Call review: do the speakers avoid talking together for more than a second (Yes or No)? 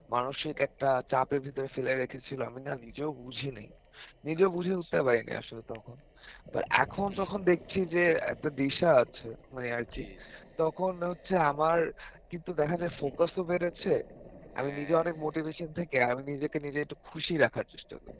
Yes